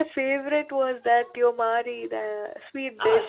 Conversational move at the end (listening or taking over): taking over